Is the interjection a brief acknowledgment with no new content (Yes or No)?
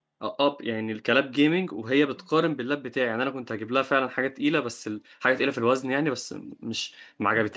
No